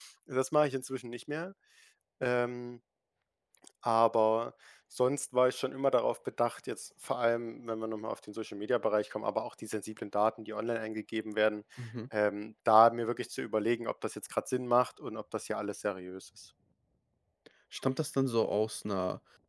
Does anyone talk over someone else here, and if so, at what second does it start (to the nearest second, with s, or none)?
none